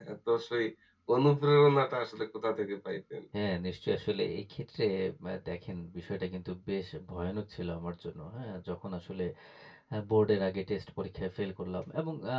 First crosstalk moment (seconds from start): none

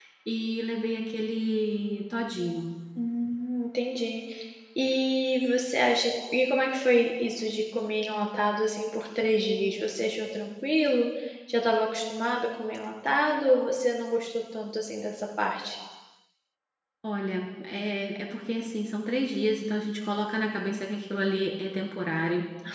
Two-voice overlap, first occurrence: none

